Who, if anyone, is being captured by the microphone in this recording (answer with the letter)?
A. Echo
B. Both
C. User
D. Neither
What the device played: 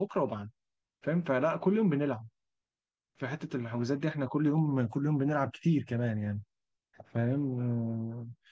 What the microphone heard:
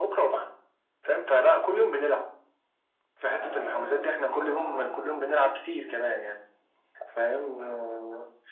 B